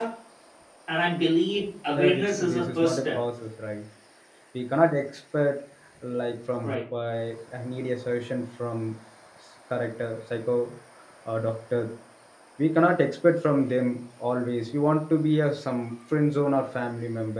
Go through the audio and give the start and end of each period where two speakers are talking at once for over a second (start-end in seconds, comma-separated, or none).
2.0-3.2